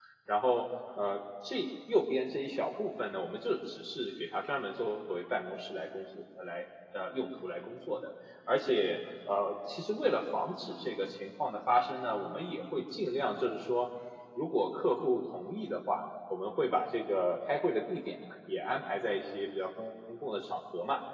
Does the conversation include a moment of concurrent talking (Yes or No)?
No